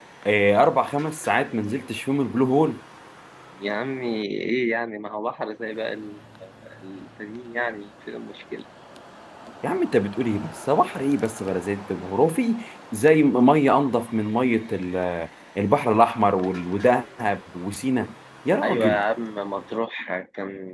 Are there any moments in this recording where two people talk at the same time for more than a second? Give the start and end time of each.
none

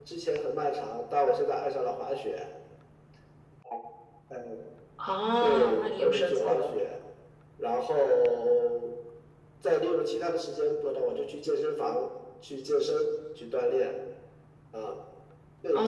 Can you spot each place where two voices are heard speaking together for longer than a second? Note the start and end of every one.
5.4-6.7

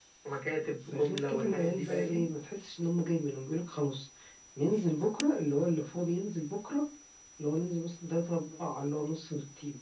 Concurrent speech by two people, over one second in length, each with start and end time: 0.9-2.2

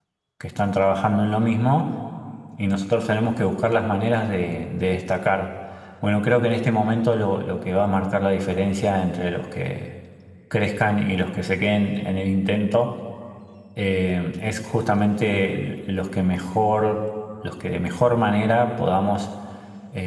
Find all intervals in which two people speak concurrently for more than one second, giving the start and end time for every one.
none

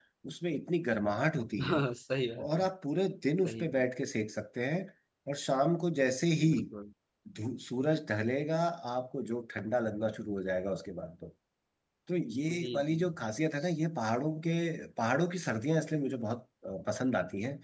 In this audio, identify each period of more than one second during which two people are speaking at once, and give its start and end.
none

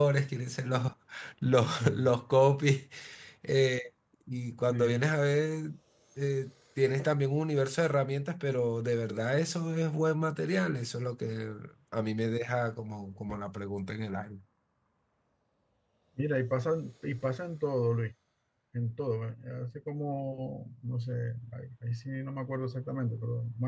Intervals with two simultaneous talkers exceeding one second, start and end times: none

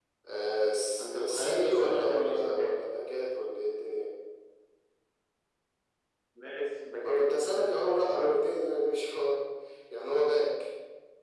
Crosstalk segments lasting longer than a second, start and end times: 1.0-2.7

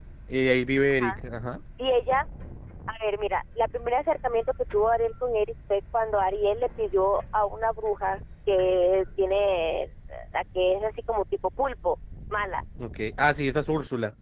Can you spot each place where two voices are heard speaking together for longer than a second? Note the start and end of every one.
none

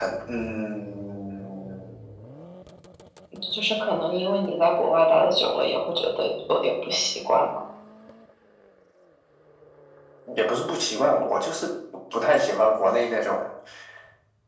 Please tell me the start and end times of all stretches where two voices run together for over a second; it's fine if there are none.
none

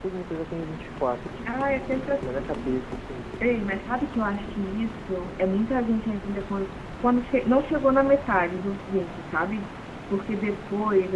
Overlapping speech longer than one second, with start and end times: none

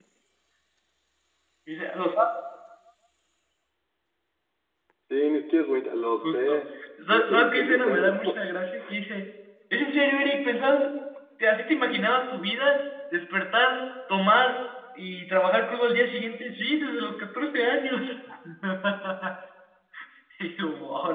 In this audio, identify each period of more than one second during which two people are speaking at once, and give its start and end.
7.1-8.3

